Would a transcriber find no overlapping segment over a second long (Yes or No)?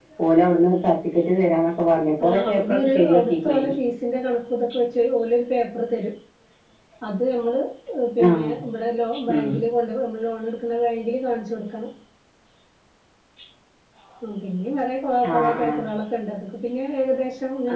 No